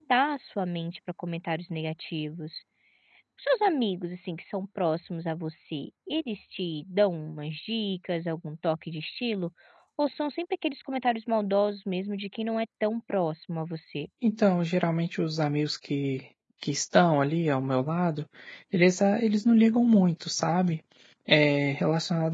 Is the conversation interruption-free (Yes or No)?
Yes